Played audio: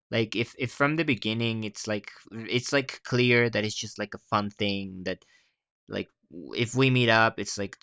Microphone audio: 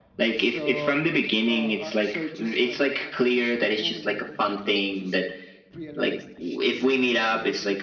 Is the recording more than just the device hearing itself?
Yes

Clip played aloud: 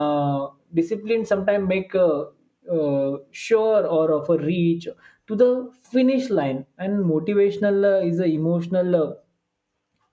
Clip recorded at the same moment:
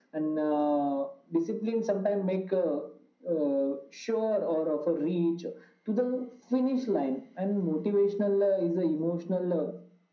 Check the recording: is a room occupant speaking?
No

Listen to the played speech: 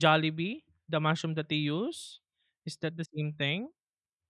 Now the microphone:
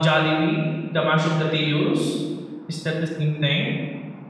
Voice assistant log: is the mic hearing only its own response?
Yes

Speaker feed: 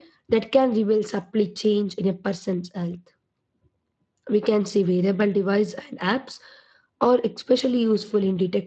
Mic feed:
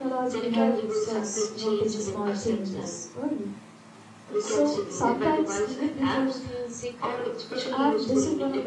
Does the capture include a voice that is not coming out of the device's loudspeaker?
Yes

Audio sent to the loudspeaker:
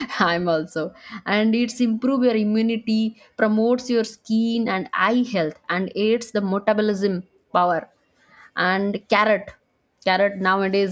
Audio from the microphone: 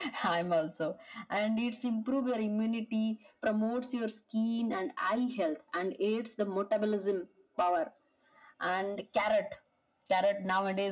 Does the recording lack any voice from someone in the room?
Yes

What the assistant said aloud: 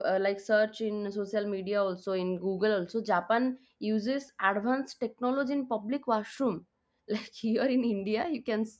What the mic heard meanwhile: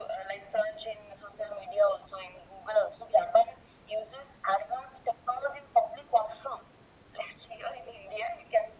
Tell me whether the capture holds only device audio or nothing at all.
Yes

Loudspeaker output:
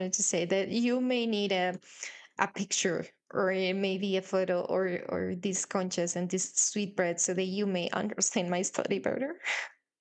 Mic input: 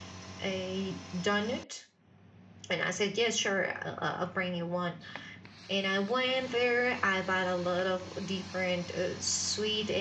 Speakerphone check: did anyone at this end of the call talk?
Yes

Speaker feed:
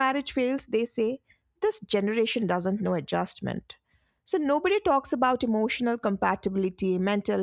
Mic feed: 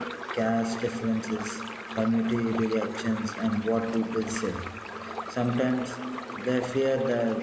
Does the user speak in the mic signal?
Yes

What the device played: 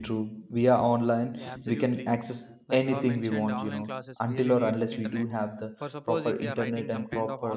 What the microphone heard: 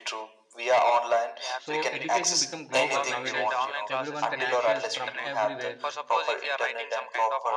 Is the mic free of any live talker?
No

